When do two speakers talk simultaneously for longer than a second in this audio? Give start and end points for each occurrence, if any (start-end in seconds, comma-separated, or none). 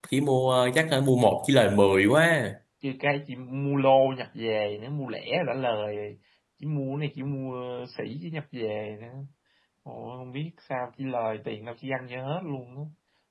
none